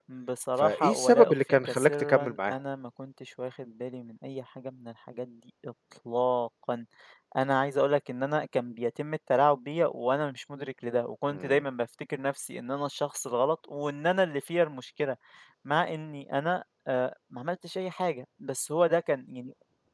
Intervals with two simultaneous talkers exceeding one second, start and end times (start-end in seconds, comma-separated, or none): 0.6-2.5